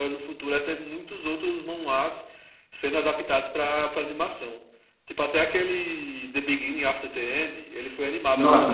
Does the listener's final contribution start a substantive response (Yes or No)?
Yes